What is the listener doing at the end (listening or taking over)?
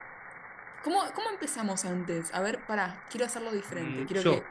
taking over